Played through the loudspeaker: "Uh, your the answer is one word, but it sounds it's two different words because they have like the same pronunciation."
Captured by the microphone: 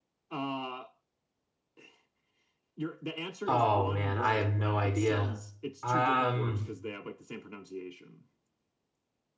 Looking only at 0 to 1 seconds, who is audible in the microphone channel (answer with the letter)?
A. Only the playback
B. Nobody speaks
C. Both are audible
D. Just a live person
A